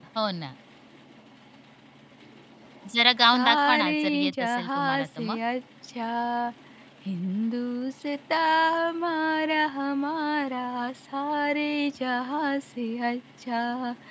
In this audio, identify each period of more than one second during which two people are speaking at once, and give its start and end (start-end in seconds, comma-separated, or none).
3.3-5.4